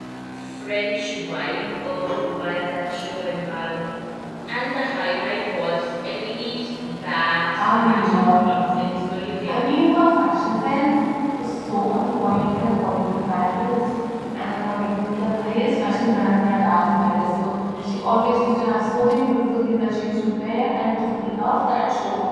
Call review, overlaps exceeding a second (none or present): present